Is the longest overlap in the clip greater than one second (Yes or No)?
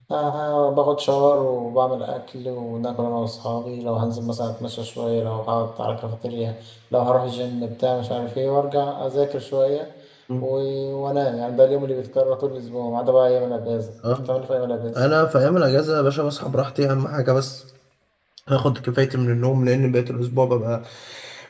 No